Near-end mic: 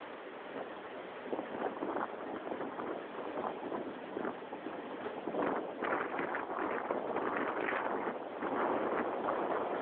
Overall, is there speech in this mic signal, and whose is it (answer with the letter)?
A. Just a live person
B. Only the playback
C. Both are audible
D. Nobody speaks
D